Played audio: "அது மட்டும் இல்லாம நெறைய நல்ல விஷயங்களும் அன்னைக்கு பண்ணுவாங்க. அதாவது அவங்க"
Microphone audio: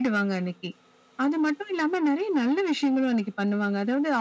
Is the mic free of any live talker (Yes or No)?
Yes